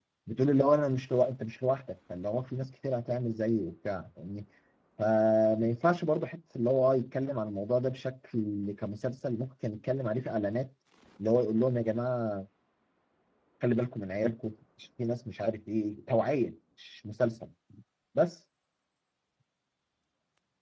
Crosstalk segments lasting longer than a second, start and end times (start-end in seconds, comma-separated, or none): none